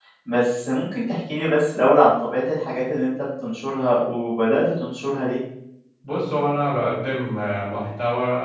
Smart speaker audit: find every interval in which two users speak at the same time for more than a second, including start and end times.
none

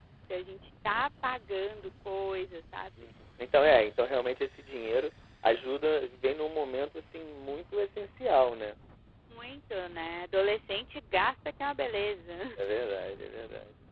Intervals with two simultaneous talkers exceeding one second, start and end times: none

